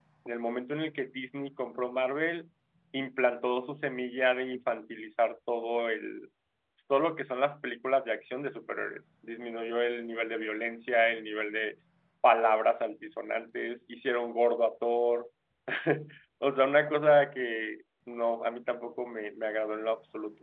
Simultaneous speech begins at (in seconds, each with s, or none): none